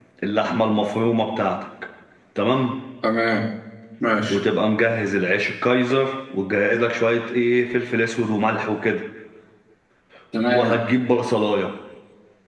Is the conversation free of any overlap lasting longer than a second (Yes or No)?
Yes